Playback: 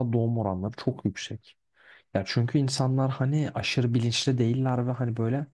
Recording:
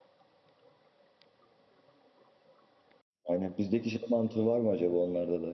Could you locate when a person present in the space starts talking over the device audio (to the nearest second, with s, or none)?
3 s